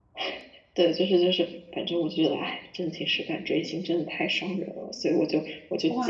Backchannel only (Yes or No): No